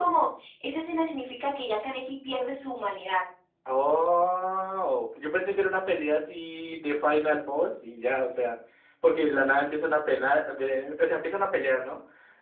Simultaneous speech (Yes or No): No